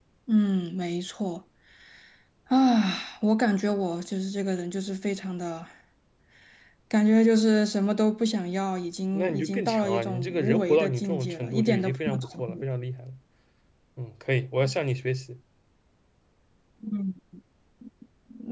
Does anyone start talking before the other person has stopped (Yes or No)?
Yes